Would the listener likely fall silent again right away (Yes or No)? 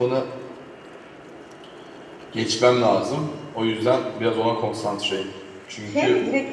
No